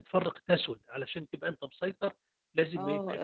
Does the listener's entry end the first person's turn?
Yes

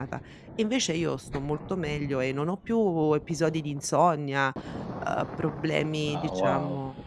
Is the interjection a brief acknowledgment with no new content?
Yes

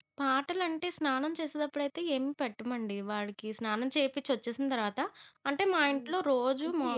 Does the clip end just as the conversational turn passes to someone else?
Yes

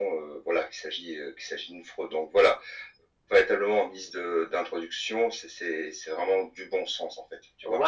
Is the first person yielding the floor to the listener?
Yes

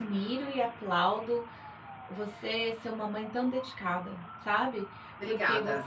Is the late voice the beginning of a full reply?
No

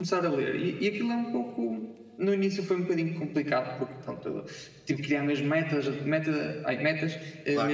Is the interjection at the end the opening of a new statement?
No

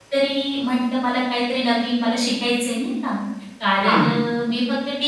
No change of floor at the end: Yes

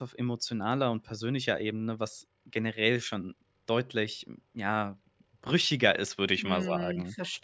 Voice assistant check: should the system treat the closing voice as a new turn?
Yes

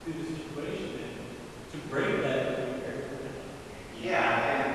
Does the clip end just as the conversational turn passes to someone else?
Yes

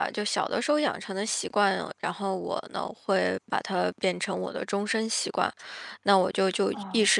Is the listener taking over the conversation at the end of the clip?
No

